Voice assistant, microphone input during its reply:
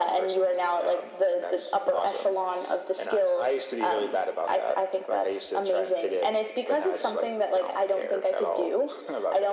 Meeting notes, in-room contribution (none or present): none